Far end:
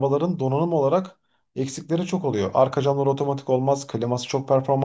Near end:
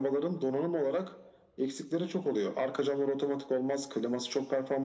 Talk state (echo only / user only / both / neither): echo only